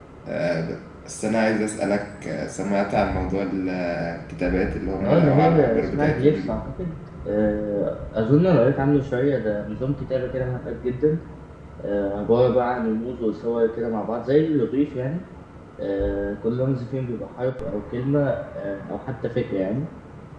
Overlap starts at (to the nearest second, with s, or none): 5 s